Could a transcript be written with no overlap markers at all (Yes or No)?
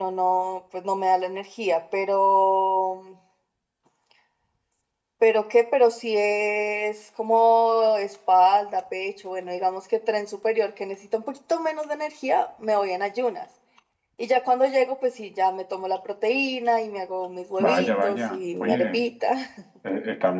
No